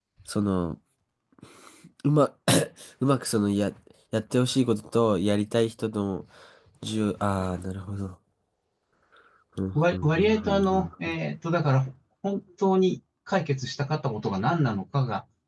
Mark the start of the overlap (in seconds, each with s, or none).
9.8 s